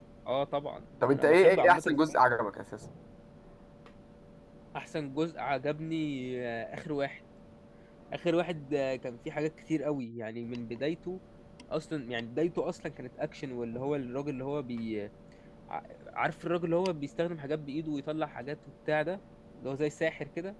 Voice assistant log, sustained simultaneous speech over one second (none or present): present